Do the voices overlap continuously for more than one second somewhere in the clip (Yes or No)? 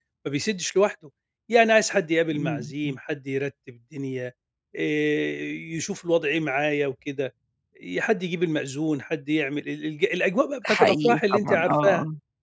Yes